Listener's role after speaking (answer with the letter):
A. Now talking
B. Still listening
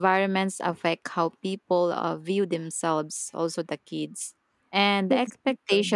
B